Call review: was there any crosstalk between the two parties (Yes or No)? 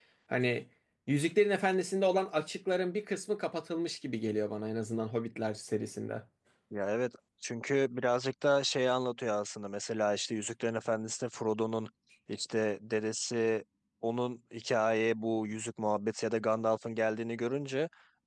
No